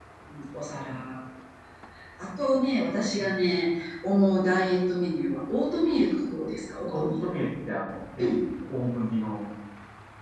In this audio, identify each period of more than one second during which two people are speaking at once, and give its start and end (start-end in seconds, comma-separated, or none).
none